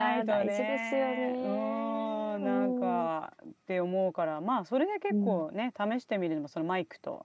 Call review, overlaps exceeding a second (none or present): present